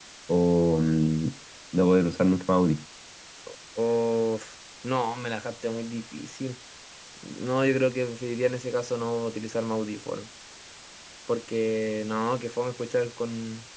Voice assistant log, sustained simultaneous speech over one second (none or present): none